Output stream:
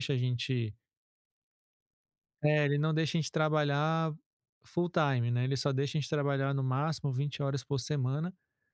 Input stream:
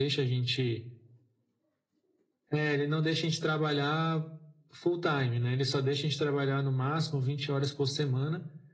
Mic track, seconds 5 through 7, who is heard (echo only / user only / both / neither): echo only